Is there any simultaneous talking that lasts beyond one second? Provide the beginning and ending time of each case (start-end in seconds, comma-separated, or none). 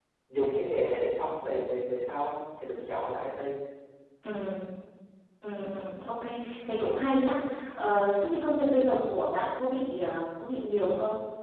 none